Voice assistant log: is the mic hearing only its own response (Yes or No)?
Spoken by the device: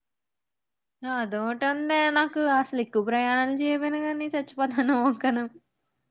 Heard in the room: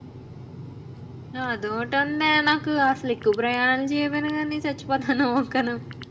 Yes